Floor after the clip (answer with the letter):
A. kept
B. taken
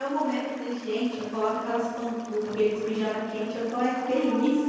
B